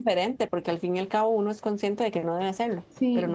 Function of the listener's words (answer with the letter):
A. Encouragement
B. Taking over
B